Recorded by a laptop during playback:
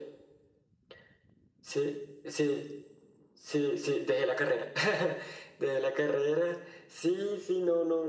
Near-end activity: none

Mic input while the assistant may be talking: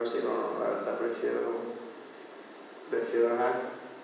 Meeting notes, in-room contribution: none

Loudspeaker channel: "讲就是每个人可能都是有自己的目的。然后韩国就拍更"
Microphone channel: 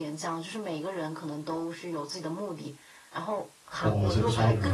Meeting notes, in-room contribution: present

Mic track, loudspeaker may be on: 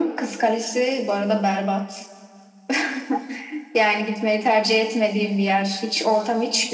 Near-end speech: none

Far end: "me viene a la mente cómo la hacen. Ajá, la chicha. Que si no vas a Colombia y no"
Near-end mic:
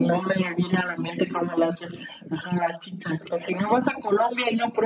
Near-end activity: none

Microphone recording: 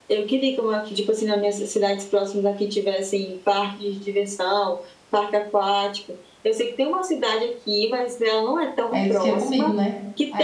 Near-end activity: present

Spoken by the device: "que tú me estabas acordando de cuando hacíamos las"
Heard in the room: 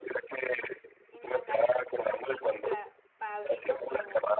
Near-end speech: present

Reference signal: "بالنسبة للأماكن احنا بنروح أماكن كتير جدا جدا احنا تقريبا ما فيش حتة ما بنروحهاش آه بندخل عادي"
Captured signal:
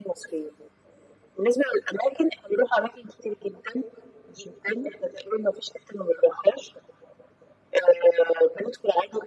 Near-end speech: none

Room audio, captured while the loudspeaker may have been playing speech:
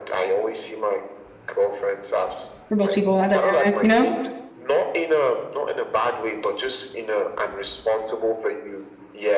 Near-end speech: present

